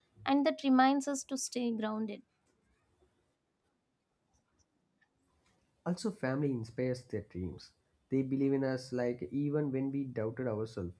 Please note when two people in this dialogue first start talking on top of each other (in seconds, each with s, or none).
none